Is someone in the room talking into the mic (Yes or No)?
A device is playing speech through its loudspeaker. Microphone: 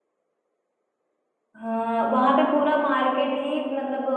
Yes